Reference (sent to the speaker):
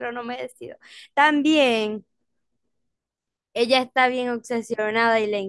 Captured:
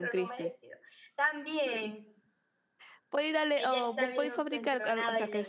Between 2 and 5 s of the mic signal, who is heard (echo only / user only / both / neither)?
both